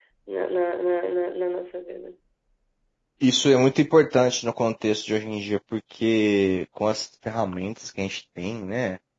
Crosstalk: none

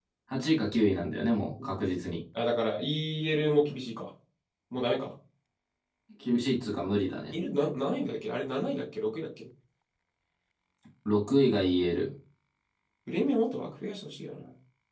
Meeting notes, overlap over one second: none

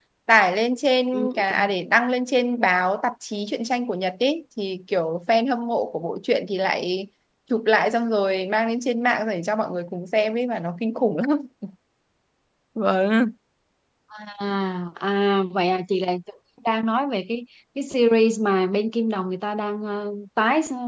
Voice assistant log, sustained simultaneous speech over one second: none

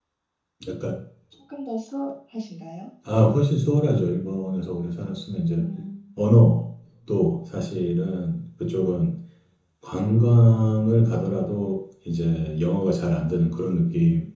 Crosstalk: none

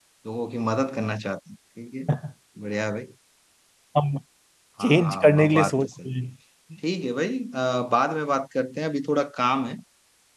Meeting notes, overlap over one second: present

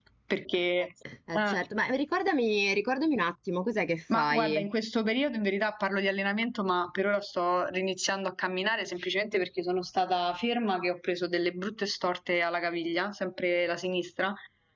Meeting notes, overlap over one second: none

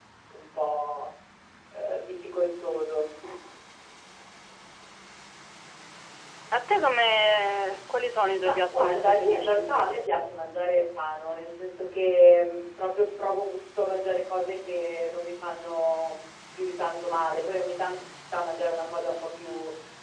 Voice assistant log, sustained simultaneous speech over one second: present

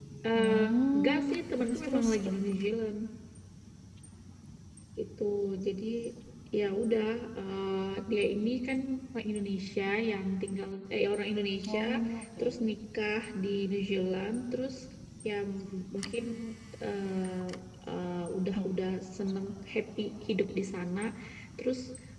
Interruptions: present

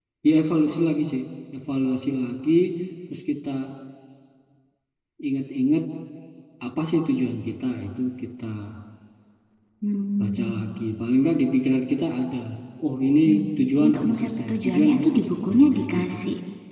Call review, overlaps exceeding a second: present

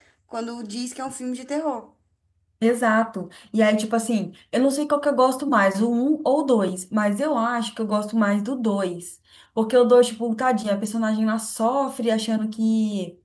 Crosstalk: none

